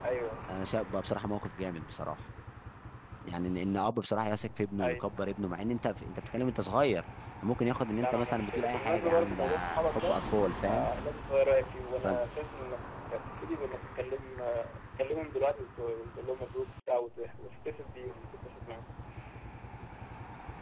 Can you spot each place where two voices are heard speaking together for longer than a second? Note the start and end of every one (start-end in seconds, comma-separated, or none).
8.0-10.2